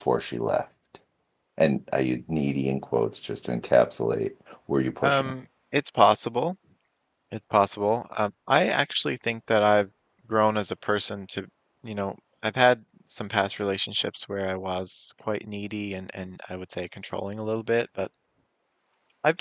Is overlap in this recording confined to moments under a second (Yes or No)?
Yes